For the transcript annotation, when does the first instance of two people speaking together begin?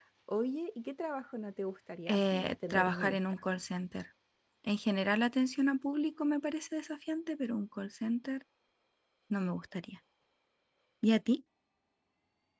2.1 s

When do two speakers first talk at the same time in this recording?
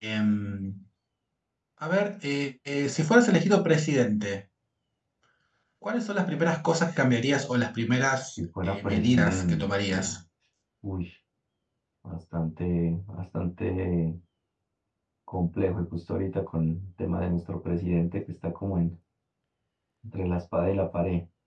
8.6 s

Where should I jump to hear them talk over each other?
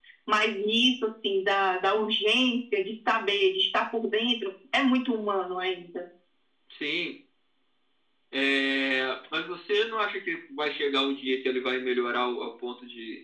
none

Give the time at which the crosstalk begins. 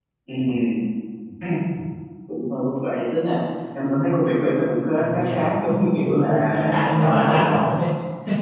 5.0 s

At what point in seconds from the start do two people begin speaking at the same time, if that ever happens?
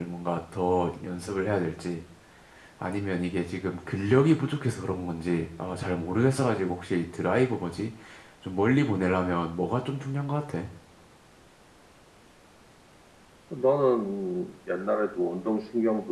none

